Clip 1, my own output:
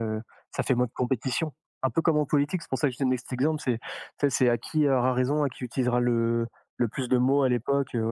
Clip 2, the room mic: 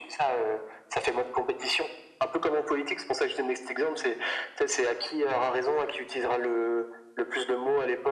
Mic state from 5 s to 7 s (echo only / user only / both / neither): echo only